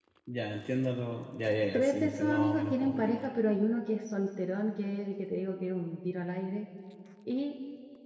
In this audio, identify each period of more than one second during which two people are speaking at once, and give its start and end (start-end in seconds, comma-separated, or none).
1.7-3.2